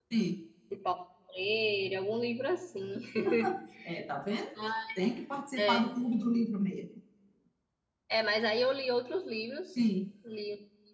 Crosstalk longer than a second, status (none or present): none